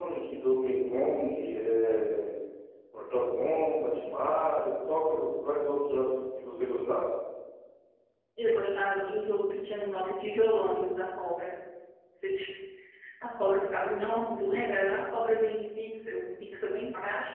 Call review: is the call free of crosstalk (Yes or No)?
Yes